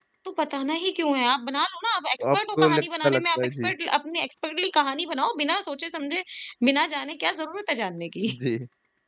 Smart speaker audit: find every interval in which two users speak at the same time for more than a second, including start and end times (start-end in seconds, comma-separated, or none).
2.2-3.7